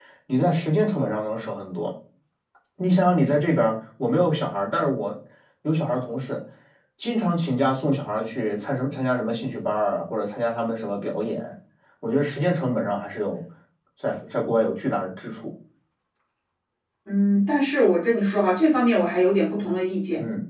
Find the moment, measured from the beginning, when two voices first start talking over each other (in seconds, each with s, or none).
none